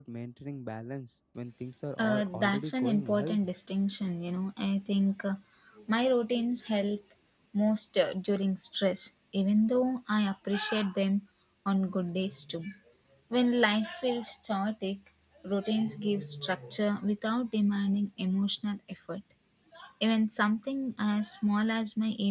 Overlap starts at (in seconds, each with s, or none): 2.0 s